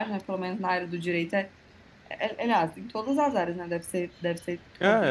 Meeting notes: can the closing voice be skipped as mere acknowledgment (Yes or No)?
No